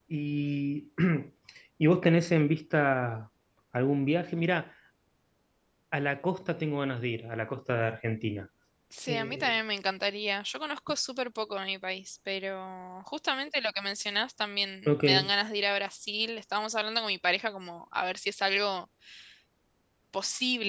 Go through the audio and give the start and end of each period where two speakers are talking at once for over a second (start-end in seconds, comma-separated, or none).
none